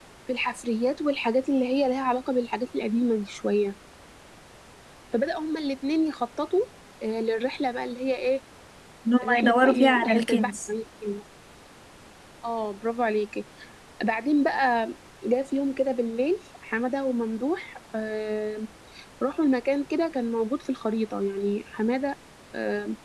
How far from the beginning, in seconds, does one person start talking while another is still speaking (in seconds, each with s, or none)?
9.2 s